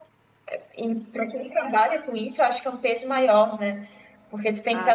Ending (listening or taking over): listening